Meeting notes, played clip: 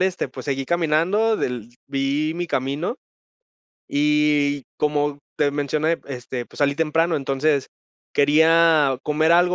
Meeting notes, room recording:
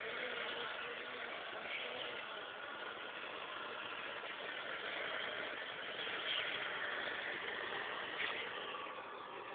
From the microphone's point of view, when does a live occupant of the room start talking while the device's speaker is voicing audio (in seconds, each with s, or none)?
none